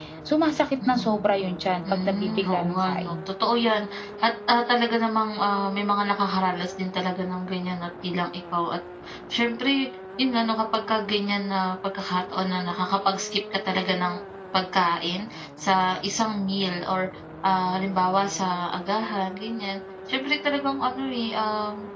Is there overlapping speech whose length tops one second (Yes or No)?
Yes